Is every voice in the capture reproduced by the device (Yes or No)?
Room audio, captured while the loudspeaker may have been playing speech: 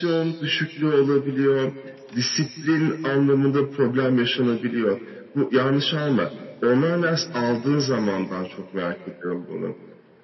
Yes